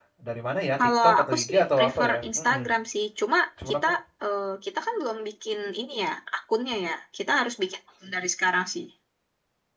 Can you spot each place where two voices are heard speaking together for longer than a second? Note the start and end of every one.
1.0-2.6

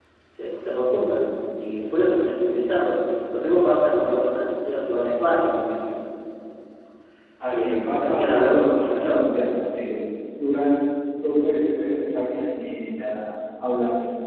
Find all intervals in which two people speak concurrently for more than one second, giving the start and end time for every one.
7.5-9.3

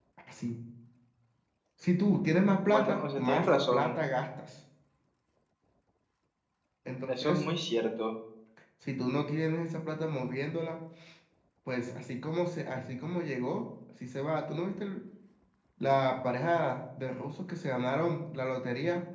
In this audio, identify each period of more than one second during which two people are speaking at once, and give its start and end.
2.6-3.9

